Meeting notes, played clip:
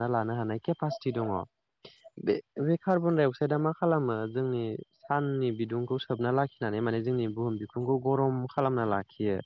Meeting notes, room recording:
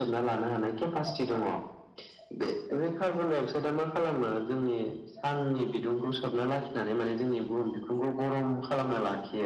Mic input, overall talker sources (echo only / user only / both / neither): echo only